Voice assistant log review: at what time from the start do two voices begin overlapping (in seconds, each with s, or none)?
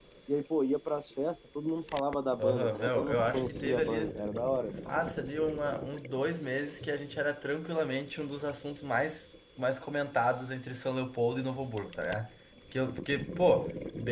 2.4 s